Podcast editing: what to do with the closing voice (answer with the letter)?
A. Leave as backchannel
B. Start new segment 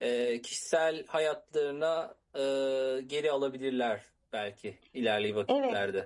B